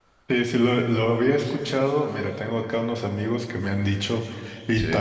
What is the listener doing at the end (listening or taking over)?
listening